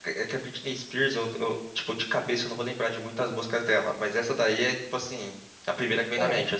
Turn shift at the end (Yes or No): Yes